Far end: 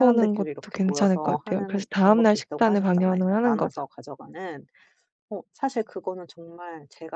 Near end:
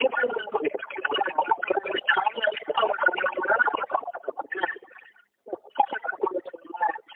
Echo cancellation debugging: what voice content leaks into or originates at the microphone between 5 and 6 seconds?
echo only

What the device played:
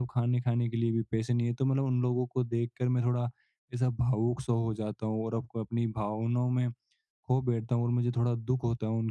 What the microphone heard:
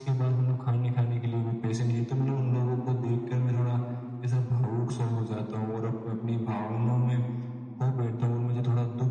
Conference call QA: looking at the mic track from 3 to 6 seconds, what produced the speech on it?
echo only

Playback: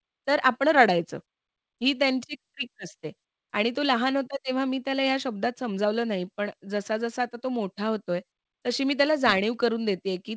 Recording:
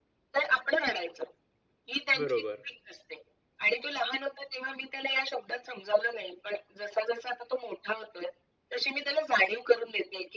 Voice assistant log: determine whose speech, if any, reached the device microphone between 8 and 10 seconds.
echo only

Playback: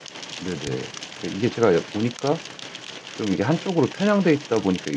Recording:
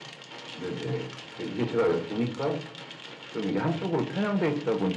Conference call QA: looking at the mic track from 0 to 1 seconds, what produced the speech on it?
echo only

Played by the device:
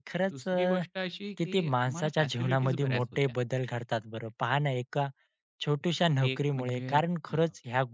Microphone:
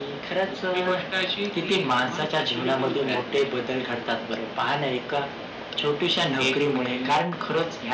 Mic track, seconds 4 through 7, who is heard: echo only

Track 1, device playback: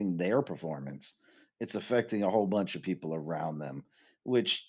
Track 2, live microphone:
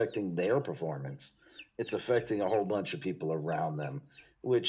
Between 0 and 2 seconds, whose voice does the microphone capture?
echo only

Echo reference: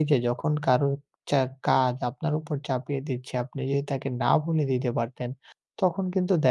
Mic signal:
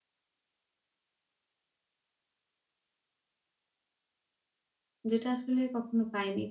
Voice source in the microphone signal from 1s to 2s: neither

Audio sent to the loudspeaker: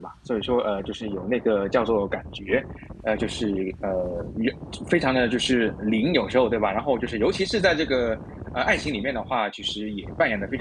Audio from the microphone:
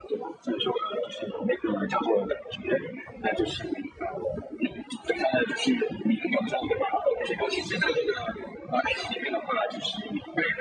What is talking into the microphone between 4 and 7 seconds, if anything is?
echo only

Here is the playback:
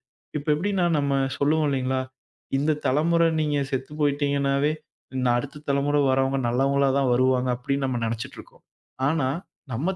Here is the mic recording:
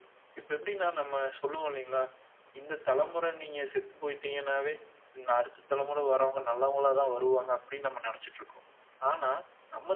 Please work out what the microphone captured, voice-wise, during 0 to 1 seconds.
echo only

